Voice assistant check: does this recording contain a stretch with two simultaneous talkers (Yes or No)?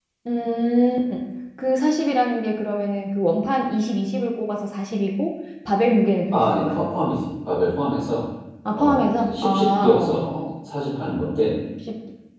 Yes